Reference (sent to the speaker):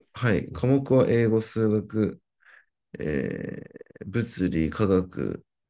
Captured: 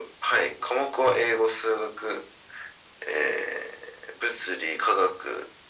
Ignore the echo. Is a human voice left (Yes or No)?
No